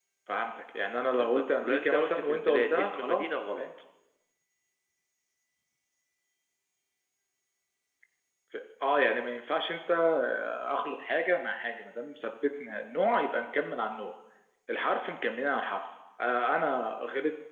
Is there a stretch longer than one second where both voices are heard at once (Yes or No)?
Yes